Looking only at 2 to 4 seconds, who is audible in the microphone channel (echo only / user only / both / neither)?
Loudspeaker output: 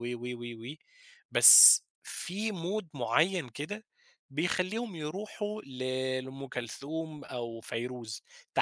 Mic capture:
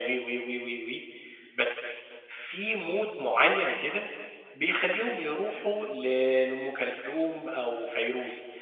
echo only